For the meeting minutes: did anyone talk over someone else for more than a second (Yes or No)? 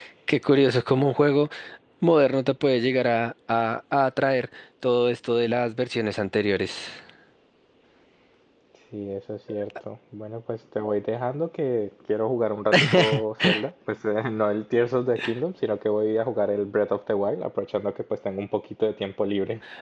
No